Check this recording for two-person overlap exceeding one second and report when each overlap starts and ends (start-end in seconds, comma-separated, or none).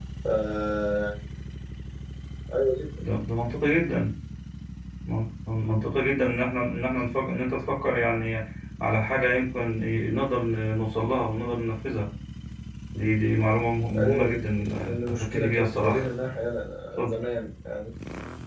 14.8-16.0